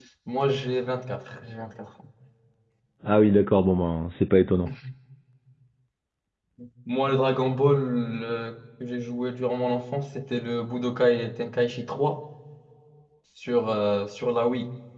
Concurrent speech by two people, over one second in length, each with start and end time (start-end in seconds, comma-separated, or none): none